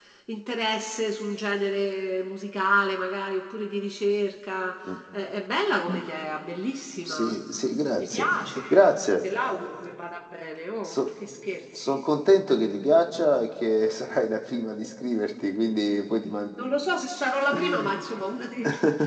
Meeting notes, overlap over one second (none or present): none